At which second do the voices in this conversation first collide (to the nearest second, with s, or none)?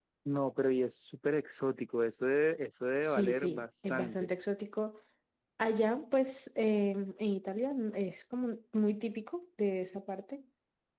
3 s